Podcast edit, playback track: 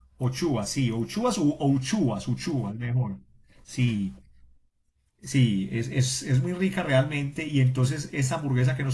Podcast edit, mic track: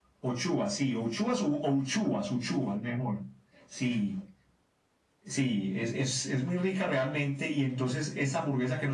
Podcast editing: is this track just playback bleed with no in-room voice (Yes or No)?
Yes